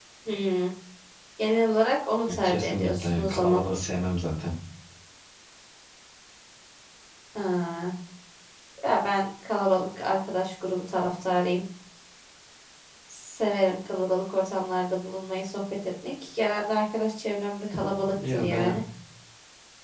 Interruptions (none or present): present